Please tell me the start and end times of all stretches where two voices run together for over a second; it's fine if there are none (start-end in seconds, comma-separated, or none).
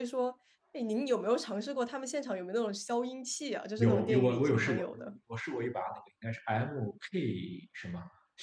3.8-5.0